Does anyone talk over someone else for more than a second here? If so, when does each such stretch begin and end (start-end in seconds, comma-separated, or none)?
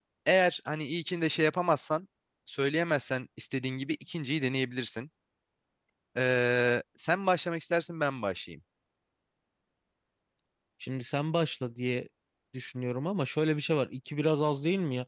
none